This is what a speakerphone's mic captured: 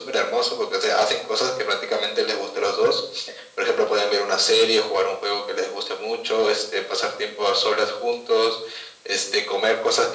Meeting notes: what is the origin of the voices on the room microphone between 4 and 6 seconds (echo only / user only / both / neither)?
echo only